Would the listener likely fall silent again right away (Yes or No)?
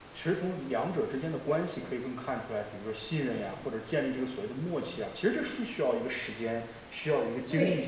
Yes